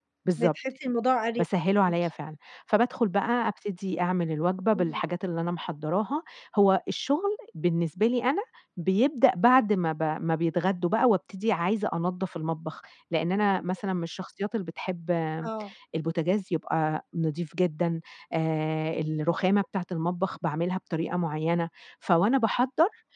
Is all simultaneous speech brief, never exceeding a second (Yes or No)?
Yes